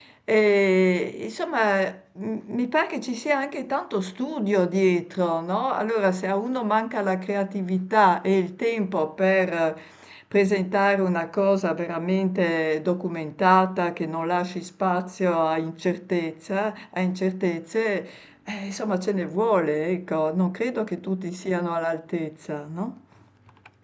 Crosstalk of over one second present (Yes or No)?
No